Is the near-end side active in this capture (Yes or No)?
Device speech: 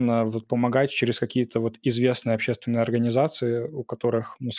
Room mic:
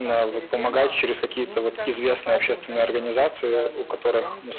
Yes